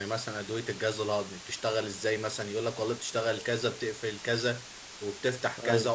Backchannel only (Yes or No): Yes